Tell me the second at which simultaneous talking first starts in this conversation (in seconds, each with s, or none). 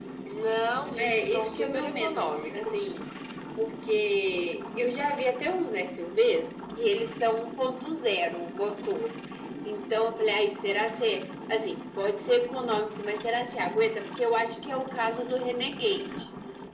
1.0 s